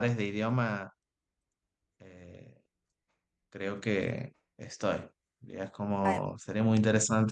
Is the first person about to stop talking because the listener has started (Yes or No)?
No